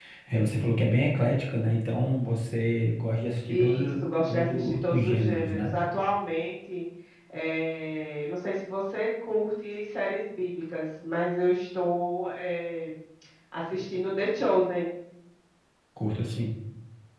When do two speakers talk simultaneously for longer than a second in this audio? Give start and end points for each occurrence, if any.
3.5-5.7

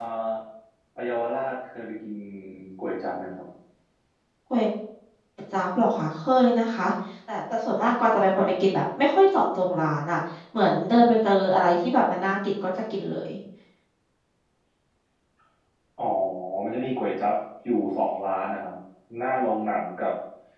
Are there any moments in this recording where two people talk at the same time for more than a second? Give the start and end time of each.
none

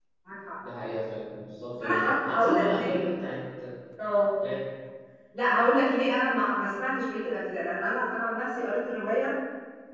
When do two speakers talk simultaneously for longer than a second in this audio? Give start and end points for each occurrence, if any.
1.8-3.0

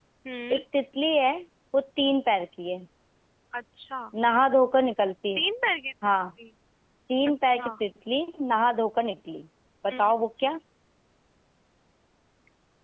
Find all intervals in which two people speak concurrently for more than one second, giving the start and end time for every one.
none

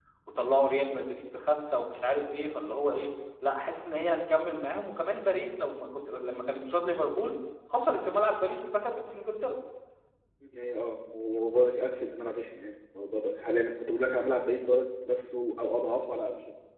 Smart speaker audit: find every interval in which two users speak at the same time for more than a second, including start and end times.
none

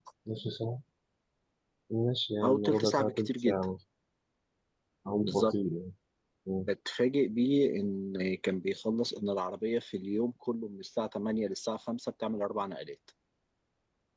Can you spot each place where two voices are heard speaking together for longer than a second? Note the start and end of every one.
2.4-3.6

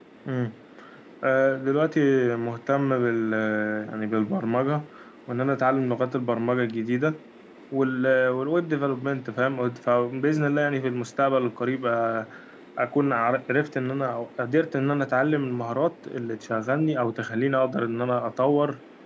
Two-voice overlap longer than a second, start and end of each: none

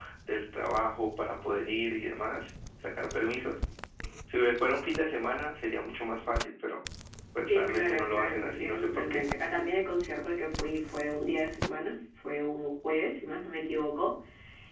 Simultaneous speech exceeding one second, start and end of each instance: 7.4-9.2

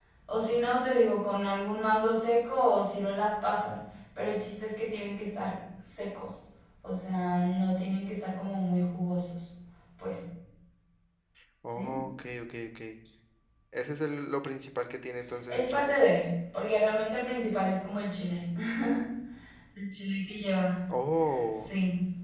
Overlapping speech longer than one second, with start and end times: none

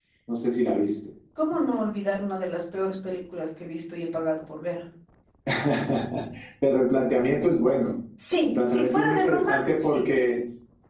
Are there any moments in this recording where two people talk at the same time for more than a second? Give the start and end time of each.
8.4-10.0

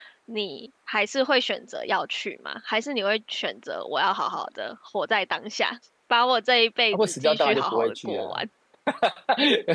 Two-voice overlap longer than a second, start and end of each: 6.9-8.4

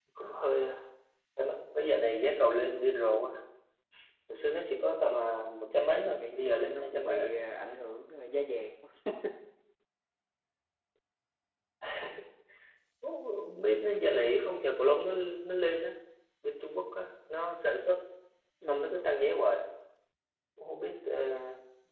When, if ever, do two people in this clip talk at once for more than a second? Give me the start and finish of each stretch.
6.0-7.3

